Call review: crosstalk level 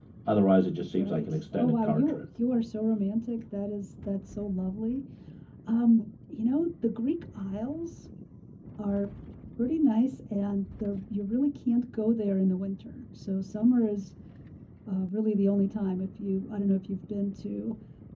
present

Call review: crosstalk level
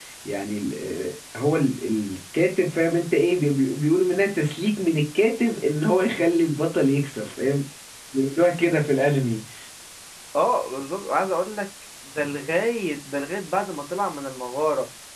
none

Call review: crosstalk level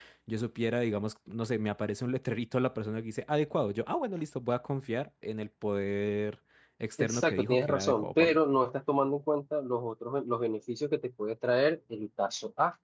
present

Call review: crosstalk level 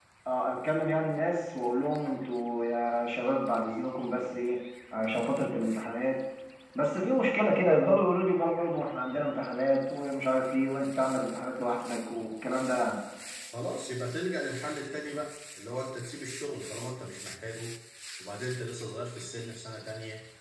none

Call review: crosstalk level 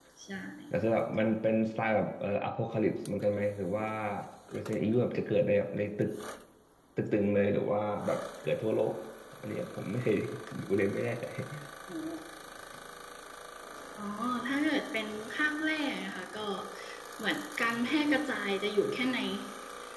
none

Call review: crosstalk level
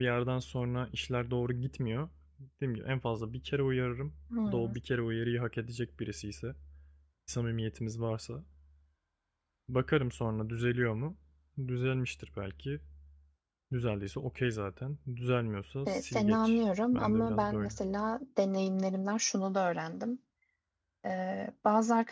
present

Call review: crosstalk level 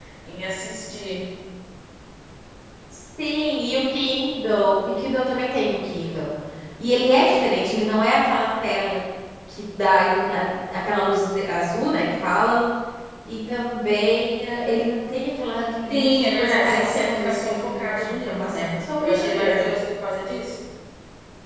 present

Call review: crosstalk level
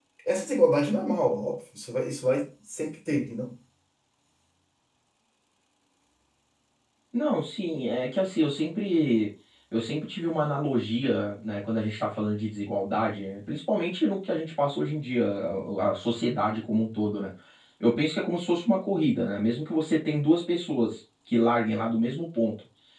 none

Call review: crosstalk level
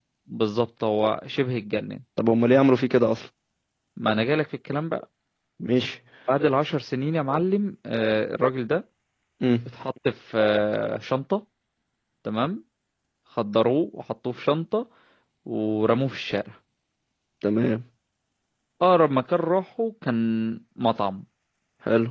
none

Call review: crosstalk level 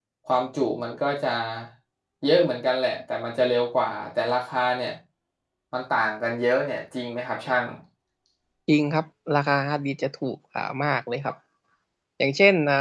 none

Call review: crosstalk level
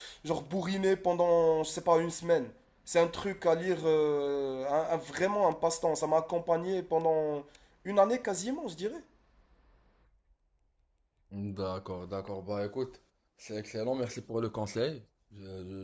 none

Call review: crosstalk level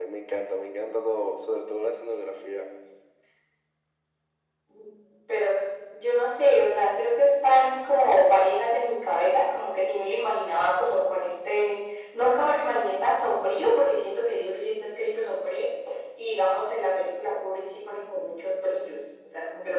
none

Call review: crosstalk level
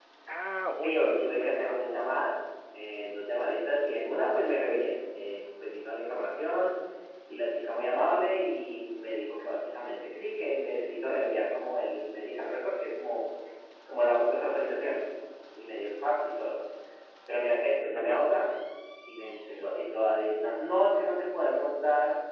present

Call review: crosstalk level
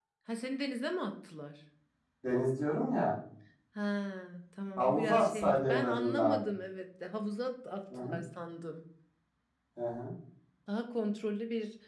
present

